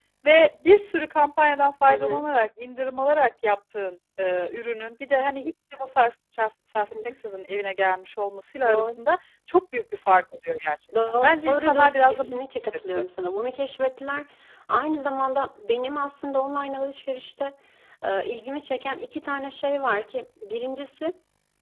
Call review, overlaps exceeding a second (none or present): present